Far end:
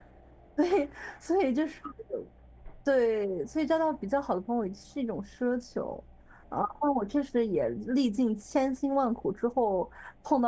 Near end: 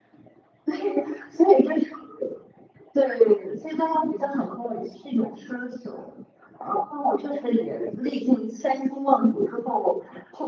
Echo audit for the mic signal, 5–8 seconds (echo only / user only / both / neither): echo only